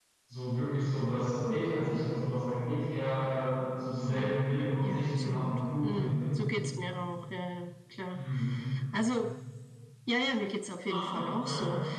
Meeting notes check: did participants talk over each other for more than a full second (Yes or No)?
Yes